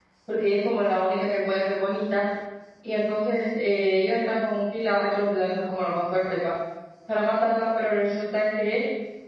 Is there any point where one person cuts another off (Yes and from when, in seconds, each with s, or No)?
No